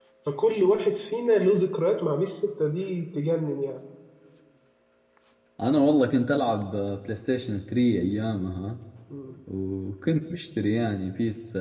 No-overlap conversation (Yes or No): Yes